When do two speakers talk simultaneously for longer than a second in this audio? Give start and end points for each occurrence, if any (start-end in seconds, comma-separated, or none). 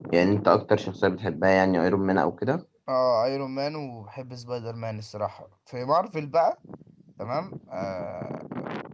none